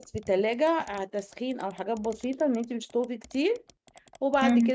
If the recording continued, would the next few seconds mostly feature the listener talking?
No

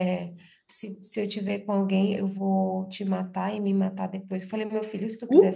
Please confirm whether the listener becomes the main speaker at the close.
No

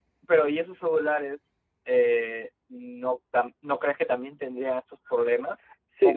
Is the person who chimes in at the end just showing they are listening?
No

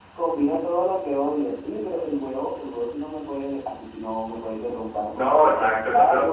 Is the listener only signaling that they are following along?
No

